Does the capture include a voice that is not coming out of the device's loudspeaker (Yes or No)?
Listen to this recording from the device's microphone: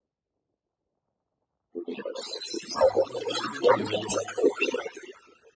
Yes